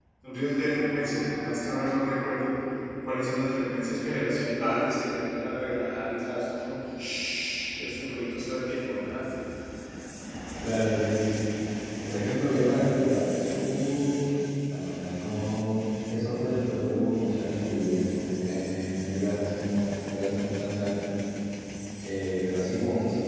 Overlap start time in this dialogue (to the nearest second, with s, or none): none